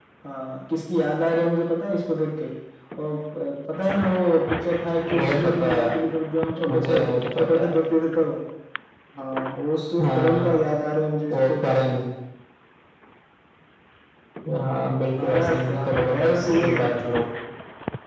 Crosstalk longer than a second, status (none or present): present